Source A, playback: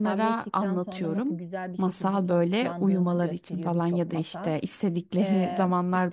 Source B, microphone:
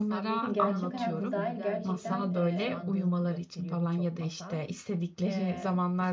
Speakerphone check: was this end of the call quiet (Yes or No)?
No